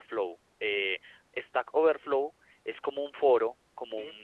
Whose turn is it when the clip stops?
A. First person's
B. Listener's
A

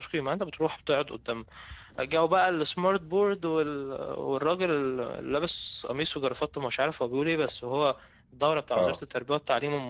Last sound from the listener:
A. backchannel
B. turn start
A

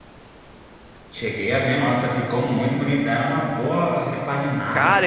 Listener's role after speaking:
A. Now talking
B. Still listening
A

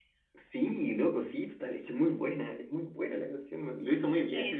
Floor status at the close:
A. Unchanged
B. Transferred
B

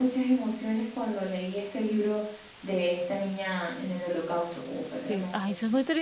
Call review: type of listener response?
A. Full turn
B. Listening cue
A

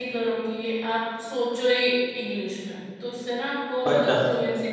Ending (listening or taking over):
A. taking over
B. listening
B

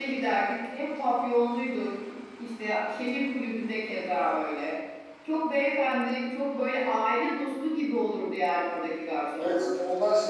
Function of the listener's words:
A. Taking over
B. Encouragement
A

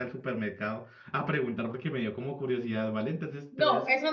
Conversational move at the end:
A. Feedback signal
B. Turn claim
B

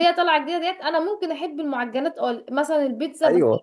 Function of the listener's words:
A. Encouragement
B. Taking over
A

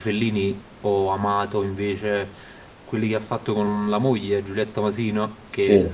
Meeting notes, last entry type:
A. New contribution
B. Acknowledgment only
B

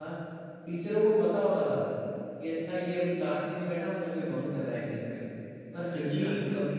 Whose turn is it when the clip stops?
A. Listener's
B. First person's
B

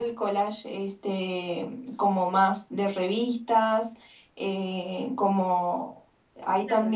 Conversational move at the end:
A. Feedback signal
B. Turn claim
B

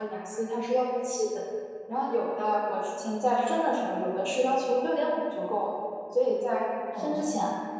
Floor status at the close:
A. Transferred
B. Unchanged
B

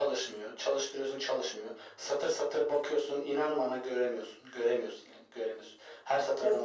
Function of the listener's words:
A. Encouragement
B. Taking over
B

